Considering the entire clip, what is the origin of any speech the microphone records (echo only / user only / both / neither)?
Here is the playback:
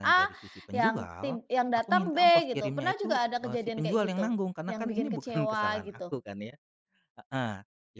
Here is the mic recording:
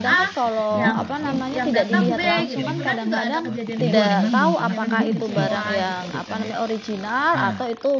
both